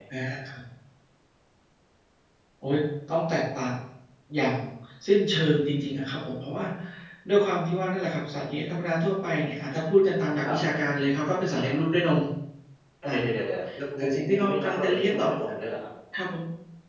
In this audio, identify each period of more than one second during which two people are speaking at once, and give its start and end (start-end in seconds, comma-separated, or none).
14.0-15.3